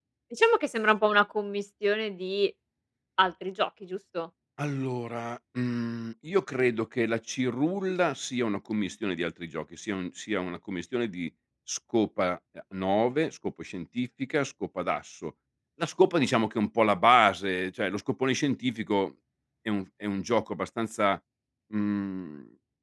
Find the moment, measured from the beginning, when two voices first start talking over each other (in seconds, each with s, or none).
none